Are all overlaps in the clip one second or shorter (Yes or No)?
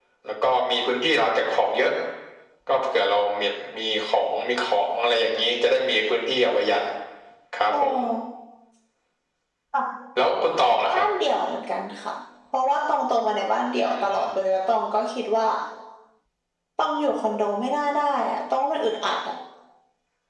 Yes